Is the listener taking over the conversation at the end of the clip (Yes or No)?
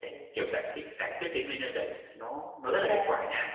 No